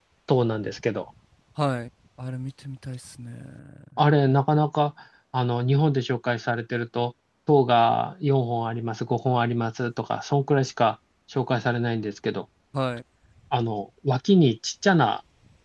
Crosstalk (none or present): none